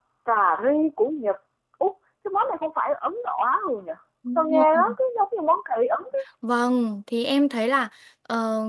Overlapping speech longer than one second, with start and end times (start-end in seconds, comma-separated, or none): none